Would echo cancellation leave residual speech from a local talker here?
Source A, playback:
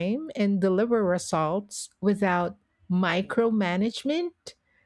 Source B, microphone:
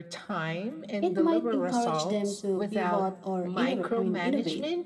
Yes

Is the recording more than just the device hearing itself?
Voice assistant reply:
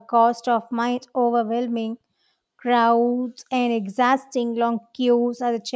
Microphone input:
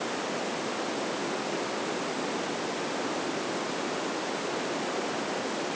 No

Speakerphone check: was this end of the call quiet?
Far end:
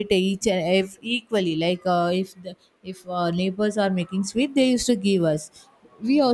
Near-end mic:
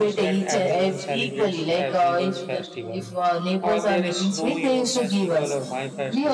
No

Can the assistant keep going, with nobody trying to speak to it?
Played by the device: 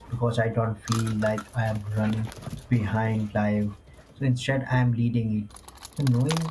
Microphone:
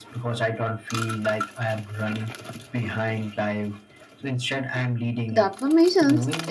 No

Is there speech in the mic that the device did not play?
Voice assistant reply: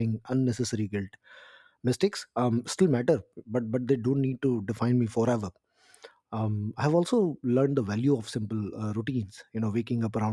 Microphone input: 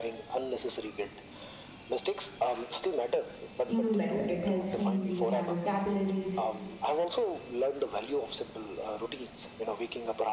Yes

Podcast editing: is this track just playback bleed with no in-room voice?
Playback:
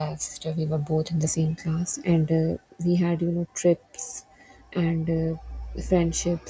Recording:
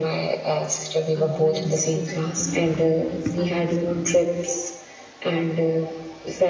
No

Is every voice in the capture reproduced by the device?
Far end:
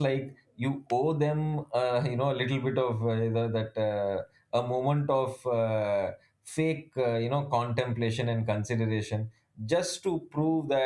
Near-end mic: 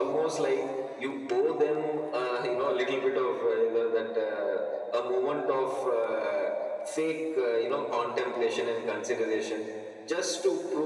Yes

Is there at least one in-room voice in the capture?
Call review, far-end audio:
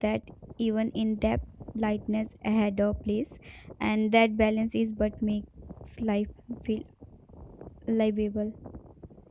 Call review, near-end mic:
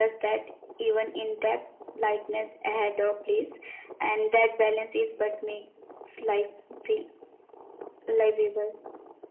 No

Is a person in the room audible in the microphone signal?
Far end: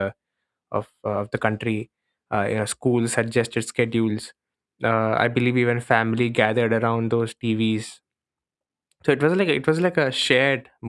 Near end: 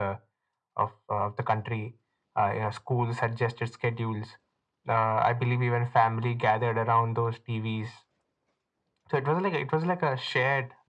No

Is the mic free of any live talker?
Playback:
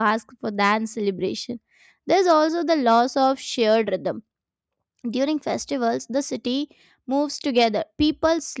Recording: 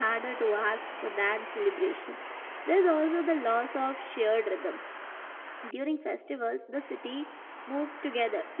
Yes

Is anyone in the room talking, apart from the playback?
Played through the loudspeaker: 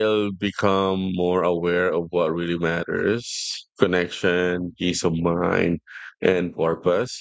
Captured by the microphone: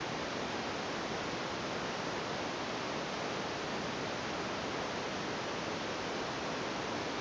No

